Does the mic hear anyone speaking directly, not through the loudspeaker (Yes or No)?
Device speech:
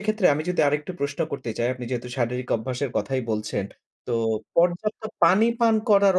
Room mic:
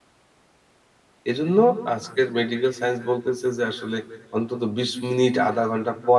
Yes